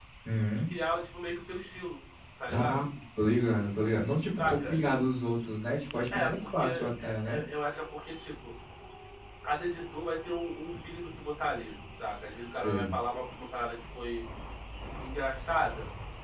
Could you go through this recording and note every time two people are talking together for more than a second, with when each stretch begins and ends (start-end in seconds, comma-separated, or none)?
6.1-7.4